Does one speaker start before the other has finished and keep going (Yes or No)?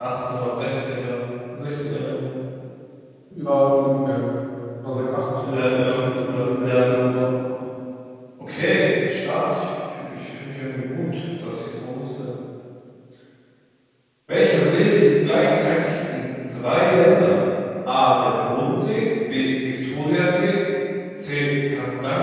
Yes